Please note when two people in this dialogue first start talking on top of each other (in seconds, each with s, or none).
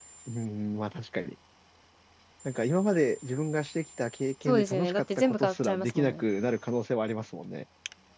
4.5 s